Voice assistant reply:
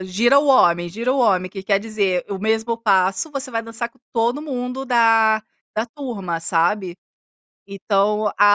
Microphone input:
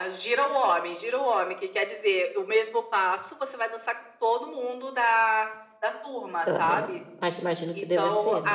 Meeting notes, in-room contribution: present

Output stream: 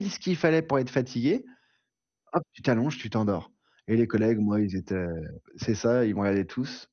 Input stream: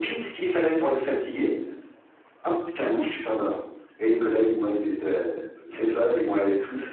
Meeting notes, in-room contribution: none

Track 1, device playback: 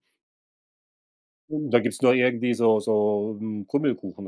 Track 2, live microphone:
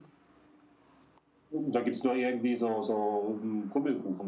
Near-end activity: none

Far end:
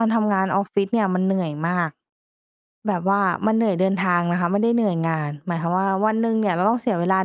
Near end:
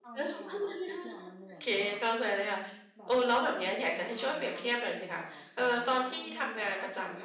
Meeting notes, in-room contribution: present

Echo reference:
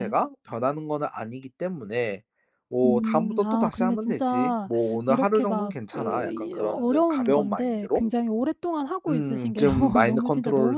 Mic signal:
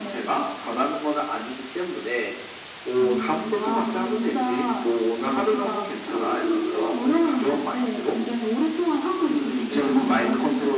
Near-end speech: none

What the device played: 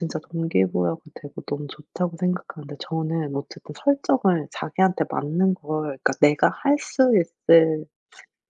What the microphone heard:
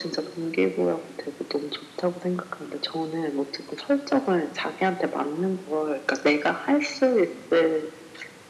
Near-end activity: none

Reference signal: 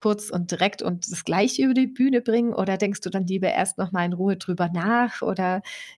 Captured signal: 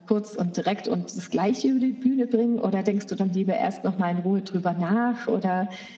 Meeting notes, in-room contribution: none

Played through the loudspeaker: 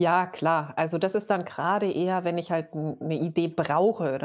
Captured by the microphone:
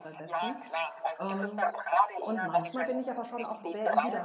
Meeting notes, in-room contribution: present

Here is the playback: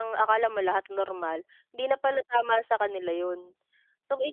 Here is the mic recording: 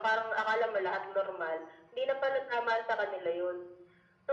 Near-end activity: none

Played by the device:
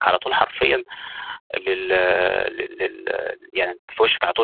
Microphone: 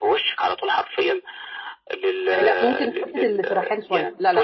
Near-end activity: present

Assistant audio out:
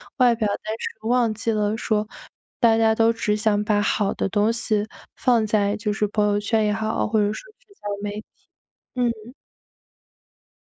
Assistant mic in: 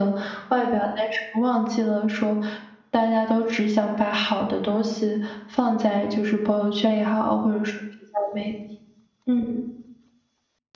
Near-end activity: none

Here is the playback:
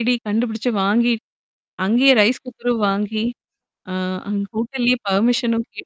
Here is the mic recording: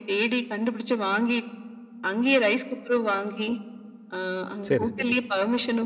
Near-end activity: present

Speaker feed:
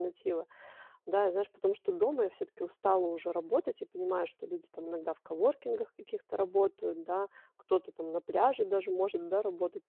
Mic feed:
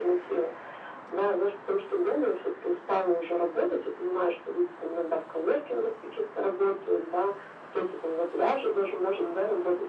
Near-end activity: none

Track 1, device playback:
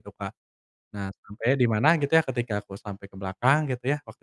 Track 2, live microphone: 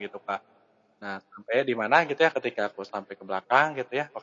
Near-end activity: none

